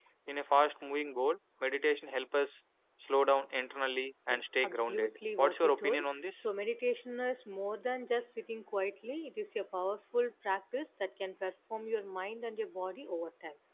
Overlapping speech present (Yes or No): Yes